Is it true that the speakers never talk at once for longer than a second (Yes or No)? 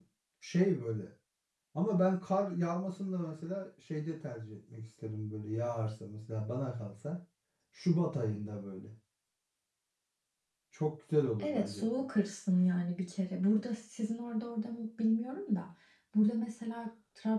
Yes